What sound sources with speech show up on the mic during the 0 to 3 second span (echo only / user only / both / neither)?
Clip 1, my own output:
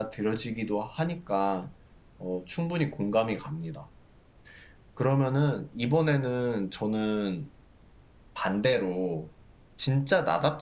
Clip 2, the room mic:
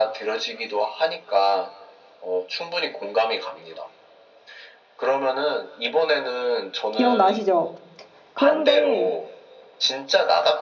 echo only